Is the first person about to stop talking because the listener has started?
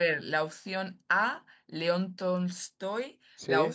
No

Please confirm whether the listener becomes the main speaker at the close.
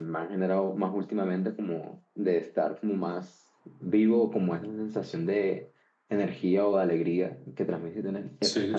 Yes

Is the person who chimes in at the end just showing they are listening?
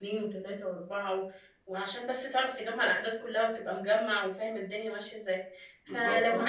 Yes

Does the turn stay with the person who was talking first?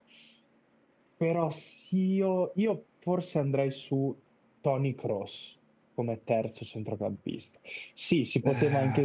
Yes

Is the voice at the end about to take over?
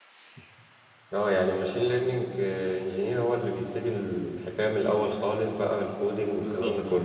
Yes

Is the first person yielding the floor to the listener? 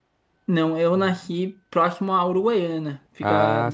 No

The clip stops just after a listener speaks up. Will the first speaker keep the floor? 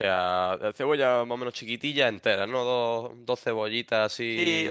No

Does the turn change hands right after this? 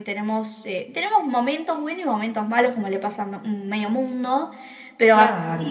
No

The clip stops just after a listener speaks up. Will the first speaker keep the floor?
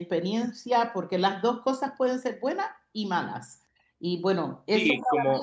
No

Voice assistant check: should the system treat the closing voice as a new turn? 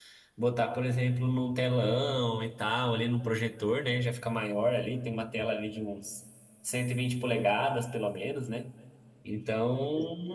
No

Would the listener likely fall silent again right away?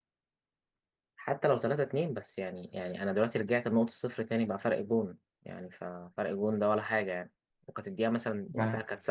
Yes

